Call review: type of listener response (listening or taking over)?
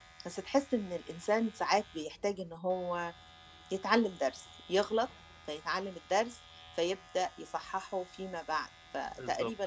taking over